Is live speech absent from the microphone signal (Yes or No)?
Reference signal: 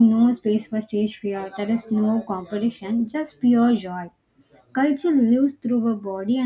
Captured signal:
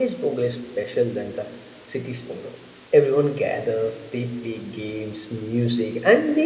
No